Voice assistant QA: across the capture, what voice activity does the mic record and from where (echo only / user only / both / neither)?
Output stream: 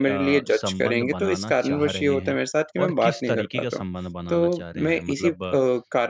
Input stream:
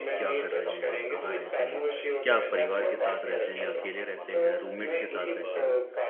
both